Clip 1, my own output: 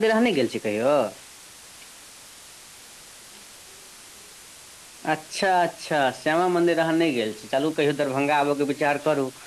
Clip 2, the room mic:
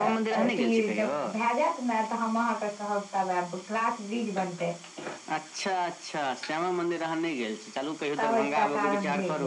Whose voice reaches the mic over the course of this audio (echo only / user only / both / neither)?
both